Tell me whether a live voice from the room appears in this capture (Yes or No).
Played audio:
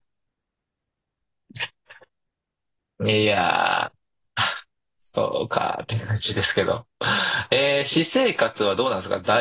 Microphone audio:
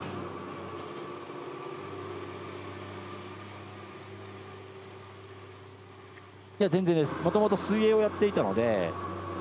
Yes